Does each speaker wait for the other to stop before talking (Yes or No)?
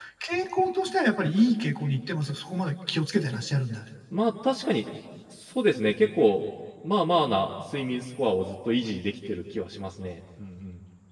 Yes